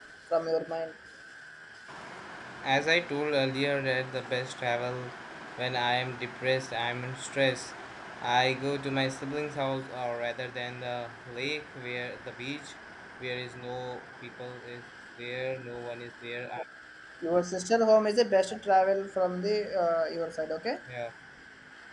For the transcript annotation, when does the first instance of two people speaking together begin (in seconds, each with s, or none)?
none